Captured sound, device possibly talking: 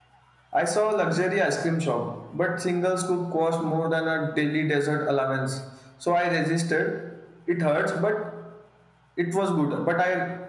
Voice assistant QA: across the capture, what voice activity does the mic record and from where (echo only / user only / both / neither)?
echo only